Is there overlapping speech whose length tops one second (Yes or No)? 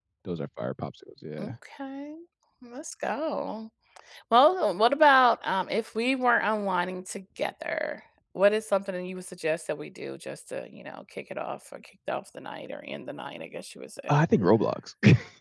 No